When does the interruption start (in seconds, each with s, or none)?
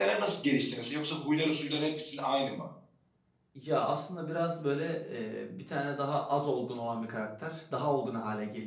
none